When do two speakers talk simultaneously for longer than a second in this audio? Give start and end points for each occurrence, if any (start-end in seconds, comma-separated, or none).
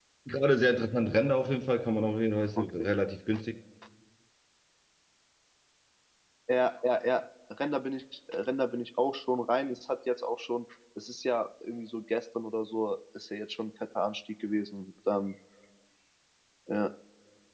none